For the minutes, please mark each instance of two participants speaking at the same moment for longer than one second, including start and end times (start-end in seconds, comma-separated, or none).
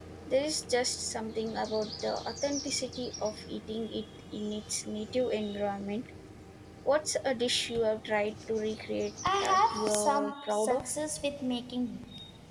9.4-10.8